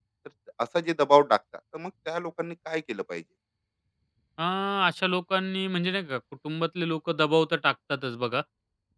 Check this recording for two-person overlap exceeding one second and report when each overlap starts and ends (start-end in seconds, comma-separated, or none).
none